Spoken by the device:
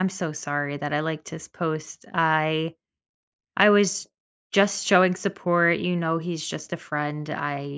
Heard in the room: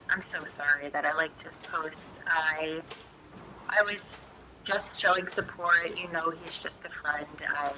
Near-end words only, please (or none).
none